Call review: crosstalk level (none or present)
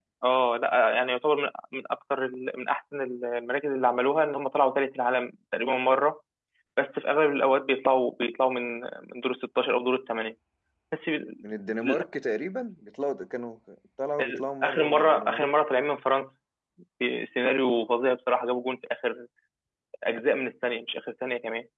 present